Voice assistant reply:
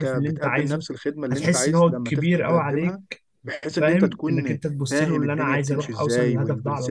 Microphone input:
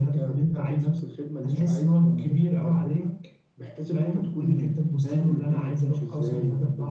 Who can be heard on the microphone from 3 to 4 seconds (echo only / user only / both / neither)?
echo only